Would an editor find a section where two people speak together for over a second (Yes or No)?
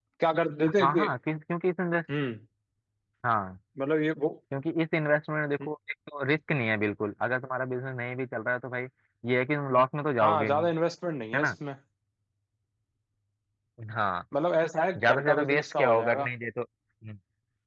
Yes